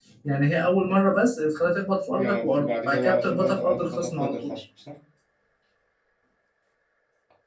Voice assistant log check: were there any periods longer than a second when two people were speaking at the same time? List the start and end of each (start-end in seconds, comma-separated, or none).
2.2-4.5